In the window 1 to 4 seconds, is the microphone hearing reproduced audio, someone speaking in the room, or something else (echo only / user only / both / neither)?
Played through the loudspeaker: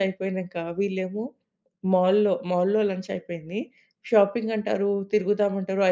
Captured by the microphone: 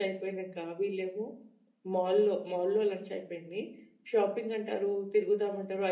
echo only